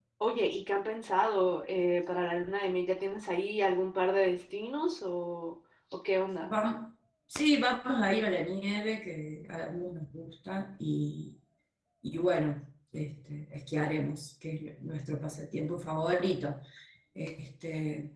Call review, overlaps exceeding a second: none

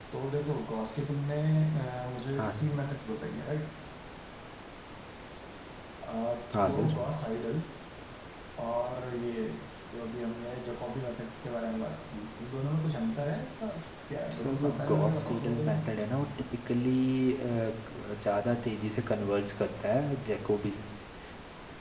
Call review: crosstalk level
present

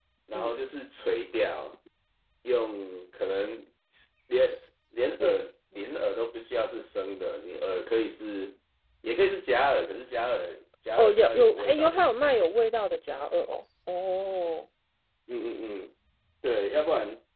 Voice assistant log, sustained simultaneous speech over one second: present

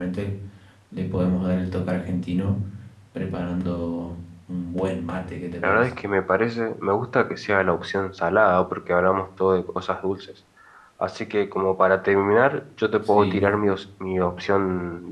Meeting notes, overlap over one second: none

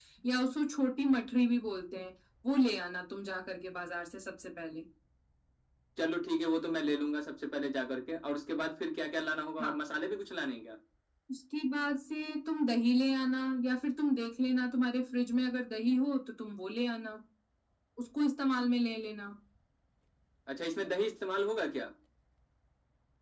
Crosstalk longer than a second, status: none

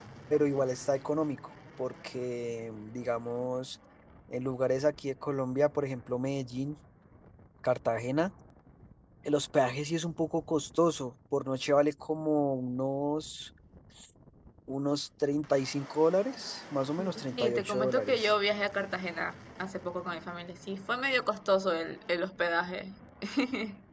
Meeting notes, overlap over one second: present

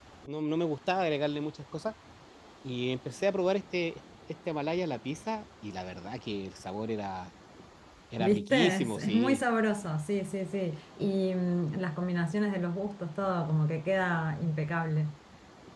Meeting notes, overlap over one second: present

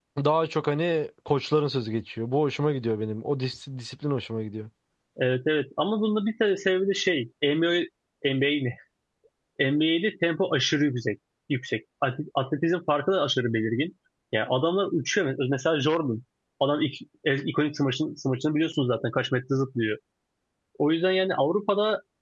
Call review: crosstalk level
none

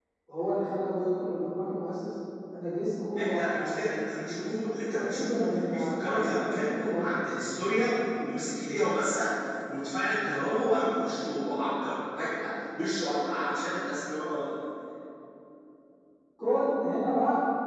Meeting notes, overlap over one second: present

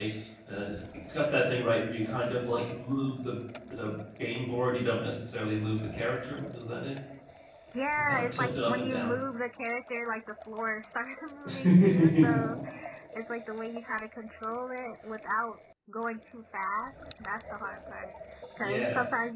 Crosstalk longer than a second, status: present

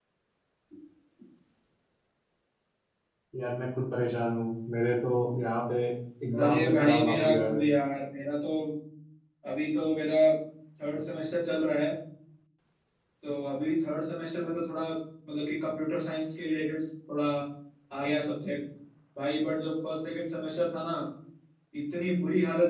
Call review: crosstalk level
present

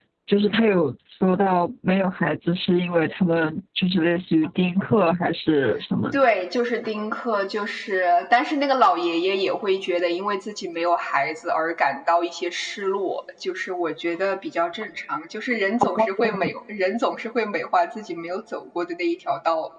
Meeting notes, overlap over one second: none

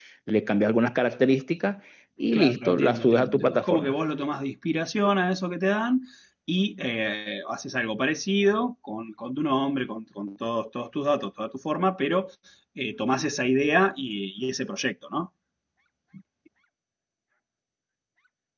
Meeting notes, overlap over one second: present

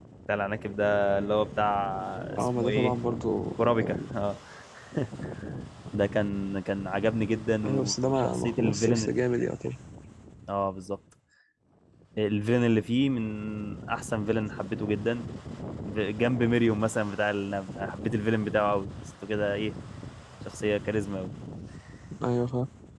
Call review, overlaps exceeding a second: present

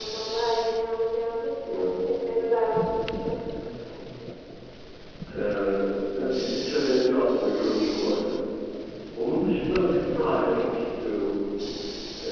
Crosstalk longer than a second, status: none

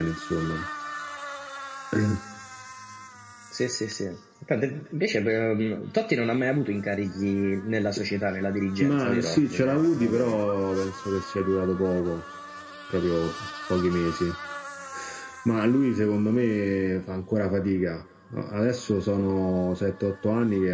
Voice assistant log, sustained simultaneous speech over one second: present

